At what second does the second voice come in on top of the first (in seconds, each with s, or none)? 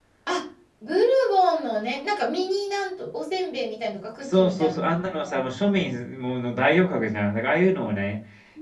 4.2 s